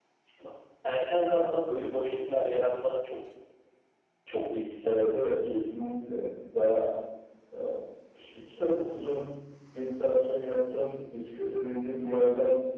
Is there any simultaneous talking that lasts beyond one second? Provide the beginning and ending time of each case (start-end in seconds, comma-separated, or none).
none